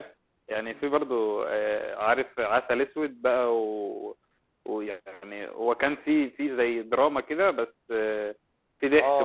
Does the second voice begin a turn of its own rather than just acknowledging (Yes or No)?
Yes